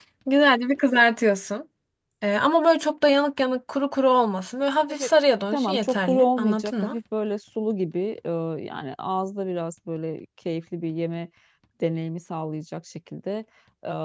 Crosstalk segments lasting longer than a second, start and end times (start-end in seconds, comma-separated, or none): 5.5-6.9